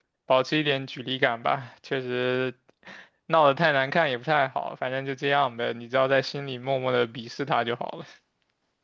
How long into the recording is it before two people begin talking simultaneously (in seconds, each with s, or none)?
none